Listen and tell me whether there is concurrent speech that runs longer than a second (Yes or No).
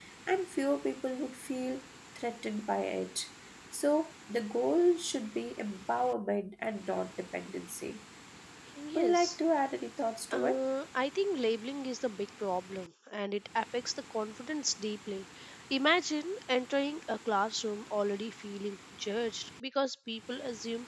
No